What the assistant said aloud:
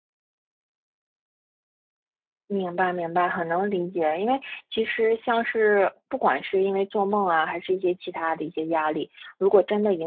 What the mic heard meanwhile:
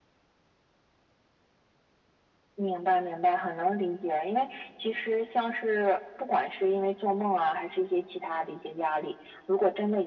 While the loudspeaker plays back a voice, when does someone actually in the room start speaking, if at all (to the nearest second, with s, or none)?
none